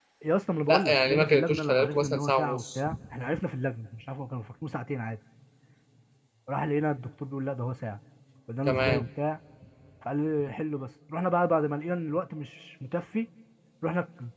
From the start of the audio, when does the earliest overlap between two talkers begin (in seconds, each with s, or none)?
0.7 s